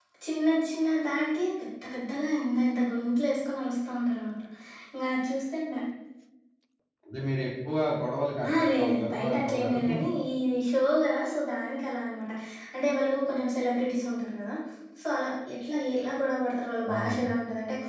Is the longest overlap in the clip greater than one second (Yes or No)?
Yes